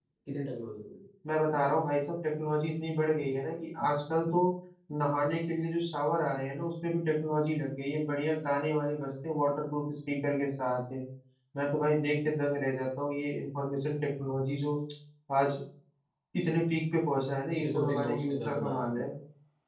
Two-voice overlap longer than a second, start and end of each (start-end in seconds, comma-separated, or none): 17.6-19.1